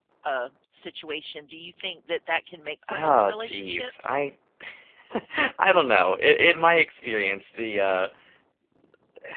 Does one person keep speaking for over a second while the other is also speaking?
Yes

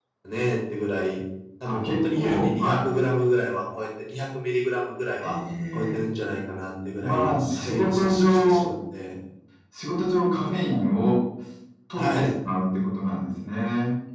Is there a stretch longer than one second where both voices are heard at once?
Yes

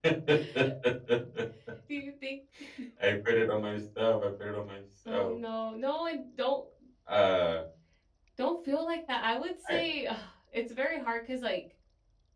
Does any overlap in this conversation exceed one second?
No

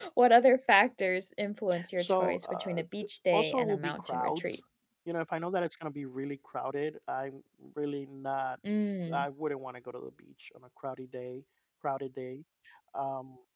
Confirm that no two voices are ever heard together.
No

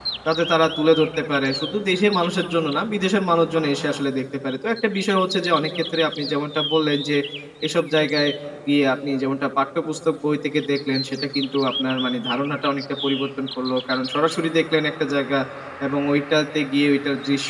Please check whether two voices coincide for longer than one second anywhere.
No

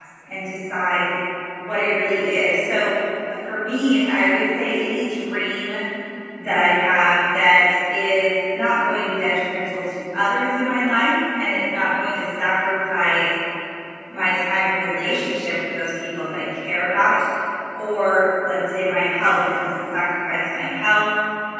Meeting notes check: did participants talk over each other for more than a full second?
No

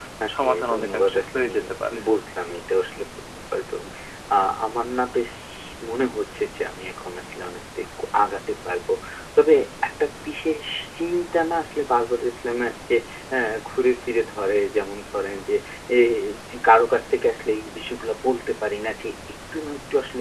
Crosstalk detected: Yes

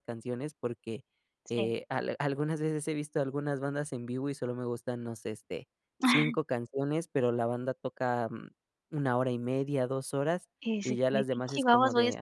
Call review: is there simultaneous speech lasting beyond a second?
Yes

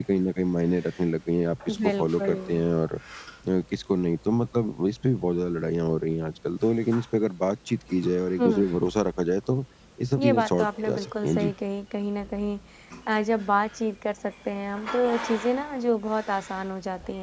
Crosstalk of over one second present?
Yes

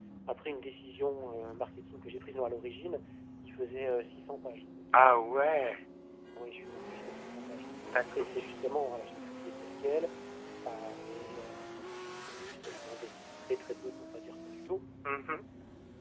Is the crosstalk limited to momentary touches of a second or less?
Yes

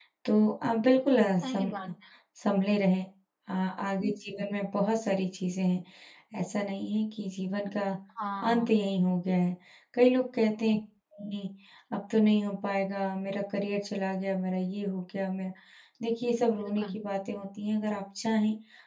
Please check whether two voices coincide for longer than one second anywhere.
No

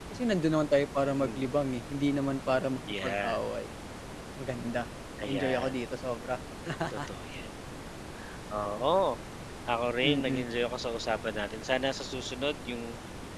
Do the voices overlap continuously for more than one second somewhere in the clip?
No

